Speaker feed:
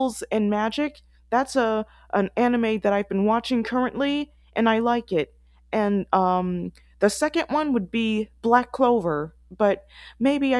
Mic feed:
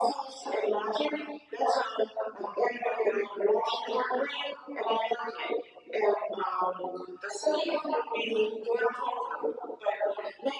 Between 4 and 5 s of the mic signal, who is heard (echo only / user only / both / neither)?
echo only